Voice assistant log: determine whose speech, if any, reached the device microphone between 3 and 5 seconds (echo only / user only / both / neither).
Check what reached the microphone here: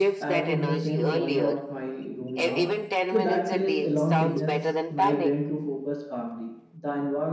both